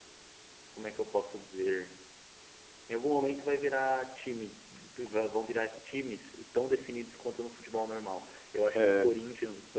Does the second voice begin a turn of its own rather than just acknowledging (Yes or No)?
No